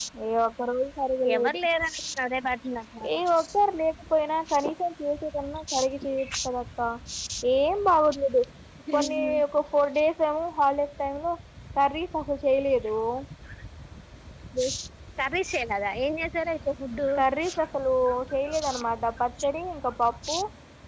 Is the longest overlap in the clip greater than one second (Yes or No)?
No